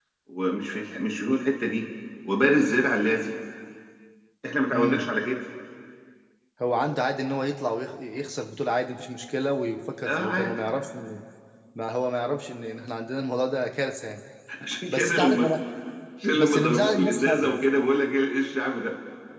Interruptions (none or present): present